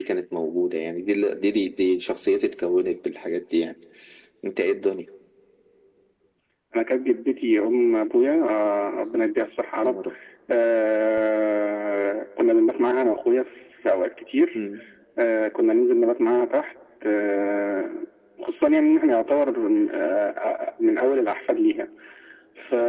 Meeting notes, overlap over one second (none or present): none